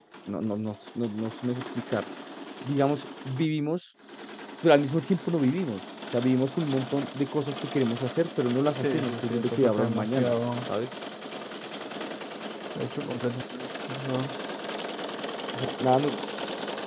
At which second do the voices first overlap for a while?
8.8 s

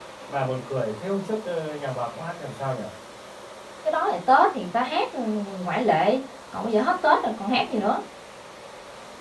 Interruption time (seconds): none

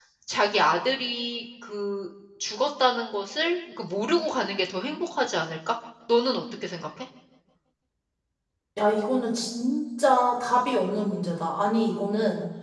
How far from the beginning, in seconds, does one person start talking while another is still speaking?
none

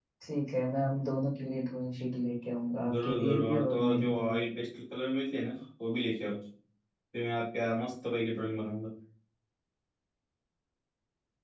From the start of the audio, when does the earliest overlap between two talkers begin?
2.8 s

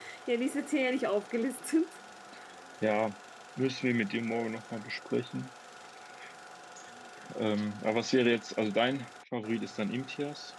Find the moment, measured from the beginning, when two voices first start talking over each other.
none

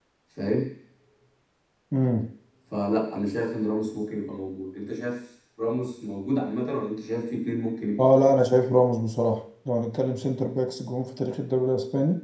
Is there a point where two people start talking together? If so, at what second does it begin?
none

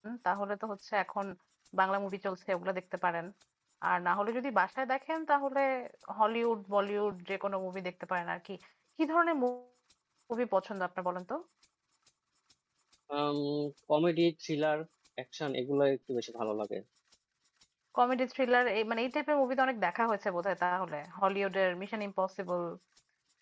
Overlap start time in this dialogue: none

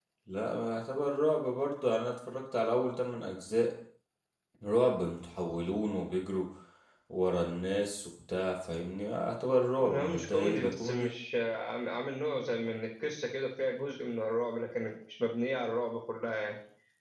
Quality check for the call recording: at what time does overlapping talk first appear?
9.8 s

